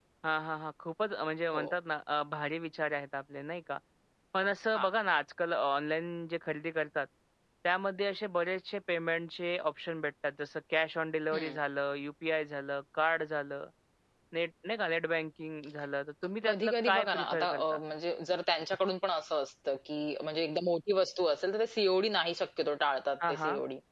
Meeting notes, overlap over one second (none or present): present